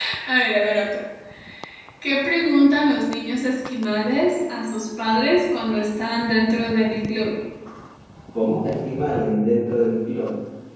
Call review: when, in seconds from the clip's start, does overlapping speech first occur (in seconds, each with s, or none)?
none